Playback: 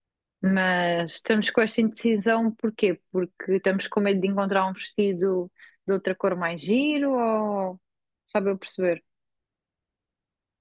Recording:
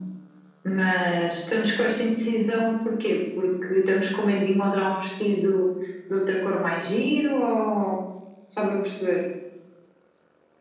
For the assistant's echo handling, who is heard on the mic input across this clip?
echo only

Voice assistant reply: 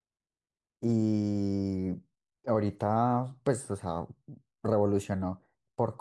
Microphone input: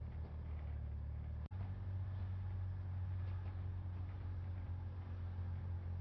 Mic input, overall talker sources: neither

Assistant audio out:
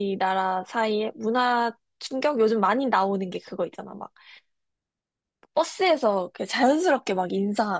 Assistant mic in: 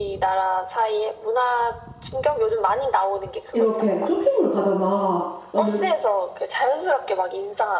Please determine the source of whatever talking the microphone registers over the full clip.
both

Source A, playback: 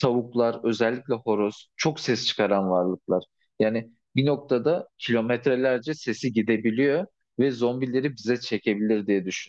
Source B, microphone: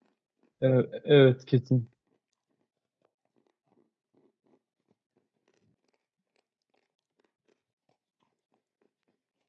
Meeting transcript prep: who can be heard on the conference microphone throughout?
user only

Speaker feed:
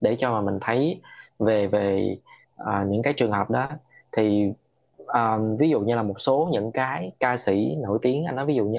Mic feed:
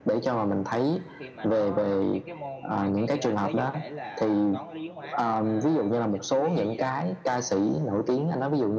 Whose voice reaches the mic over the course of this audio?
both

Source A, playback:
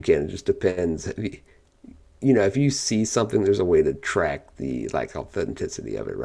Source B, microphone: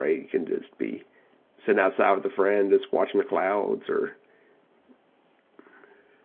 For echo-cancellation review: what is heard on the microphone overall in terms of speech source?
user only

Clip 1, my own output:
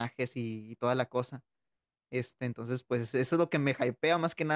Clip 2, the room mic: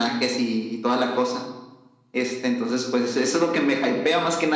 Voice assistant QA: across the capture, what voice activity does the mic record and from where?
echo only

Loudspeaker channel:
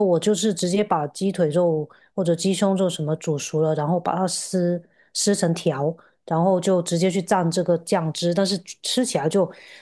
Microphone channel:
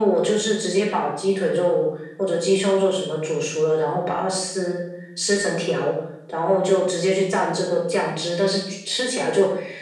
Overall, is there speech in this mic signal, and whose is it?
echo only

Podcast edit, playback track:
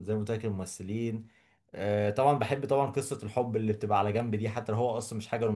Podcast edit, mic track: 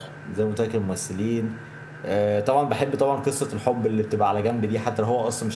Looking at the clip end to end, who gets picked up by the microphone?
echo only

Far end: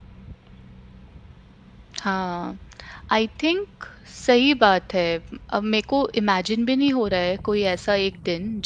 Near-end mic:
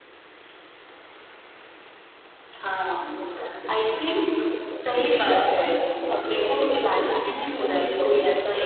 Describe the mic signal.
both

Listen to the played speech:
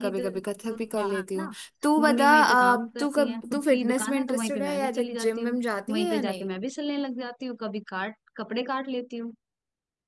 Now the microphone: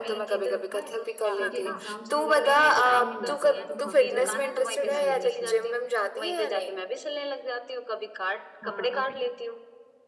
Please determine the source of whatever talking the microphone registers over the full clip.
both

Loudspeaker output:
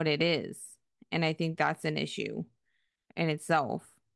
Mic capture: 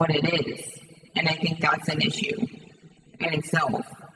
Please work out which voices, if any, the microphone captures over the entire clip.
echo only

